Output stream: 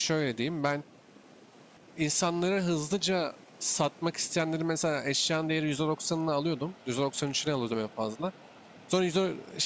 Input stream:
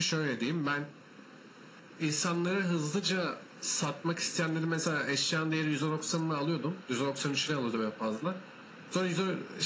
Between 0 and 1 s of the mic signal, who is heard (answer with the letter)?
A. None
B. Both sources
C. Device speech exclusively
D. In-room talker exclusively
C